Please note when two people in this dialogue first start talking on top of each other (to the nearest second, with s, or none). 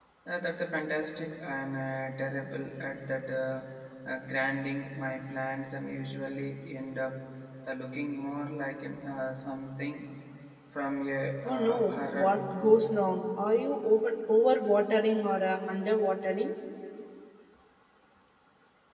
11 s